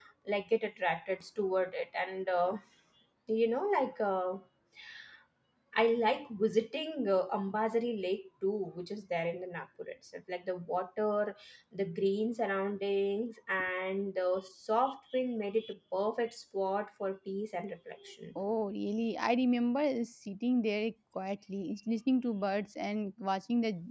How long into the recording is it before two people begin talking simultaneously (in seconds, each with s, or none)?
none